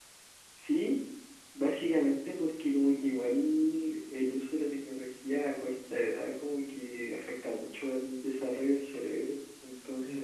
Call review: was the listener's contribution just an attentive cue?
No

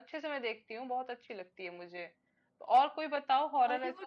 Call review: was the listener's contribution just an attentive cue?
Yes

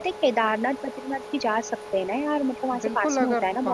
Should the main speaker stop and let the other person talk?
Yes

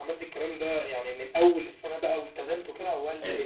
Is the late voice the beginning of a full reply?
Yes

